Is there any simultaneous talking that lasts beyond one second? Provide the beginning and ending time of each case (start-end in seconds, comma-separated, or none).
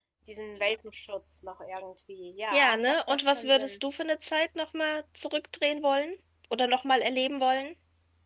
2.5-3.8